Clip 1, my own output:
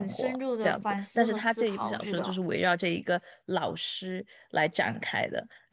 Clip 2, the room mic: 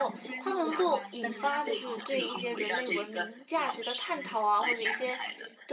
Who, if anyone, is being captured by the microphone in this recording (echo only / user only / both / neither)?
both